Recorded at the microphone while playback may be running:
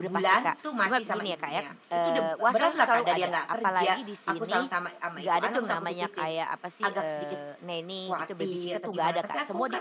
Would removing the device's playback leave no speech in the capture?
No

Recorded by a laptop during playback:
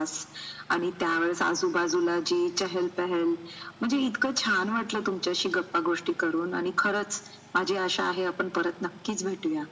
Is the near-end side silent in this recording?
Yes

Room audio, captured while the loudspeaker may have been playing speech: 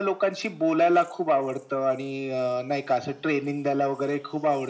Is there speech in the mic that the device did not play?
No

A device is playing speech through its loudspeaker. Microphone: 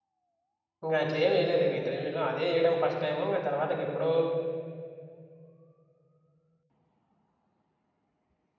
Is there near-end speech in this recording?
Yes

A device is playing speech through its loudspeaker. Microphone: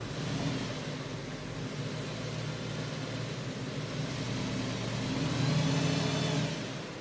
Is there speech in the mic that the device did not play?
No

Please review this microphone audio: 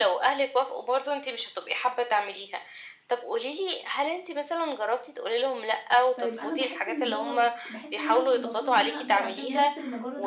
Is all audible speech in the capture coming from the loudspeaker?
No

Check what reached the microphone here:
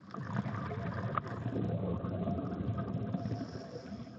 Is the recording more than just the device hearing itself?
No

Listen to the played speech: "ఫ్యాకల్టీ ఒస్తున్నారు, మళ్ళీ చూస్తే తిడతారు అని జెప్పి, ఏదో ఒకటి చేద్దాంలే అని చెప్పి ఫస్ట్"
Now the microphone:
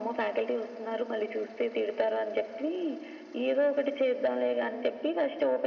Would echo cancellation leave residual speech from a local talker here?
No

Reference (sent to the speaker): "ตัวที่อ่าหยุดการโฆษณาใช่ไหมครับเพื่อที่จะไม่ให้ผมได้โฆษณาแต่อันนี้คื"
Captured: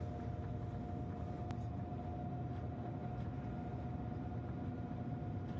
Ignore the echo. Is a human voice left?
No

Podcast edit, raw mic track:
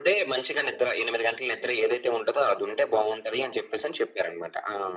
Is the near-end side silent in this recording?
Yes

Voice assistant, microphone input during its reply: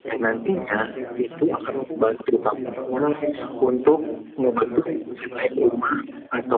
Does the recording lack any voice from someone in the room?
No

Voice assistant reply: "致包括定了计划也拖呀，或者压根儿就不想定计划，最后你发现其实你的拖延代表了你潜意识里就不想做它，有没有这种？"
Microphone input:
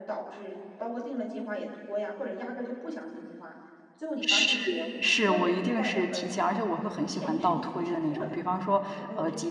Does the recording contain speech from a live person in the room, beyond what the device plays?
Yes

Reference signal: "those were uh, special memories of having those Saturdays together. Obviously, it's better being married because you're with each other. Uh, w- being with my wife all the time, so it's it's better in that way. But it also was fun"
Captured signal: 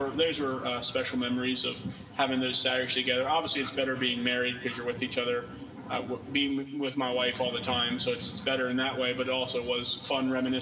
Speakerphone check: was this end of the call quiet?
Yes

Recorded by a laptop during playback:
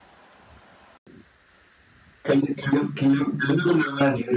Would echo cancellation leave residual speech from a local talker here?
No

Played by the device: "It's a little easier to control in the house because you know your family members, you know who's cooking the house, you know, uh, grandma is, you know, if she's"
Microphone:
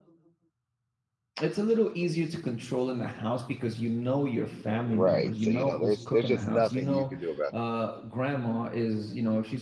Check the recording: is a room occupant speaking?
Yes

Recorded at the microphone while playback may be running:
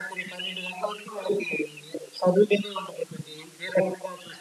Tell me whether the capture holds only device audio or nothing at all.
Yes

